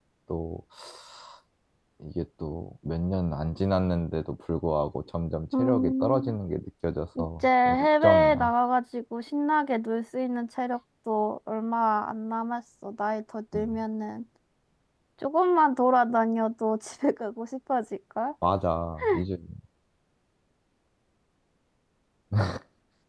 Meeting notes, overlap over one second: present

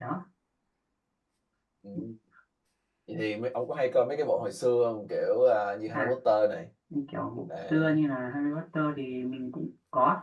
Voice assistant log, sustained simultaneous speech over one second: none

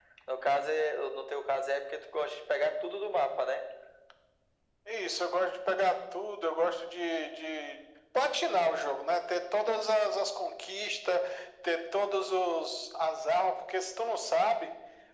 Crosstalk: none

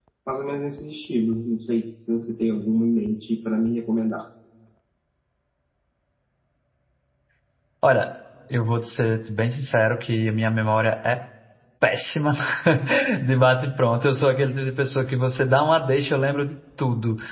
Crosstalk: none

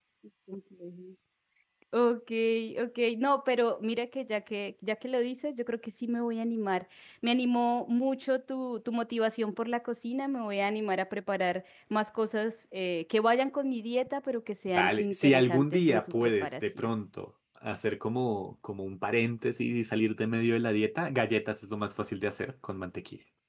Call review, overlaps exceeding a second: present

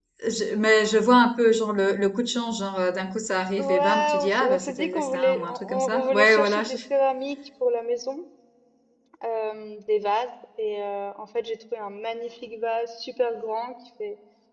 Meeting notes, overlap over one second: present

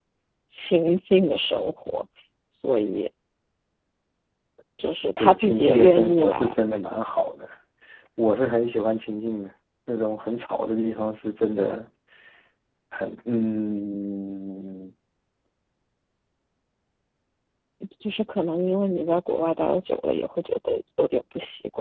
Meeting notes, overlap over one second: present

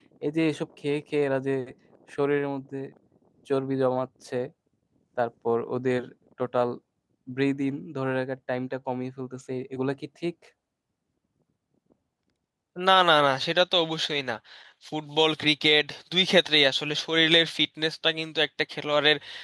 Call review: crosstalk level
none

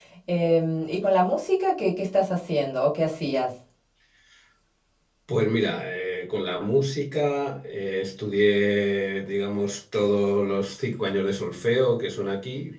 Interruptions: none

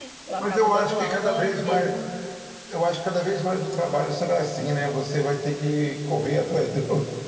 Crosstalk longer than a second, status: present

